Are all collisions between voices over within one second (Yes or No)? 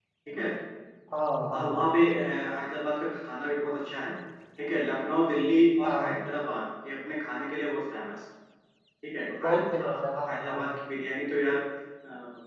No